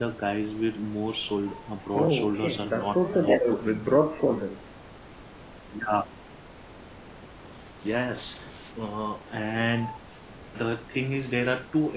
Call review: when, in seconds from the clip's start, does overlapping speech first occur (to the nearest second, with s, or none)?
2 s